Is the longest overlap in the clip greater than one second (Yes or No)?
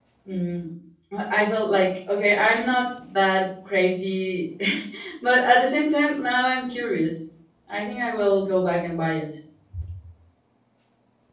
No